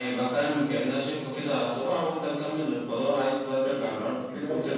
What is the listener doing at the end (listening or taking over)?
taking over